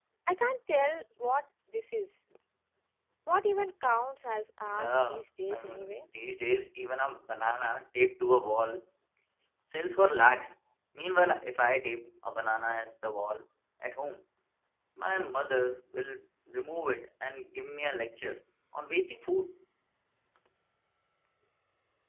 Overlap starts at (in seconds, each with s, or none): 4.7 s